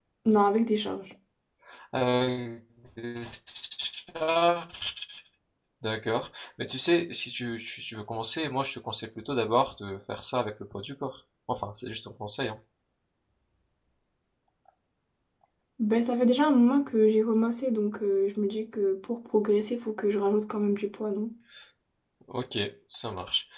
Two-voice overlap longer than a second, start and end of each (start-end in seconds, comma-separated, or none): none